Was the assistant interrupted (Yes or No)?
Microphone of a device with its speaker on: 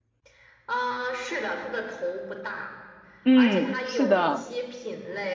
Yes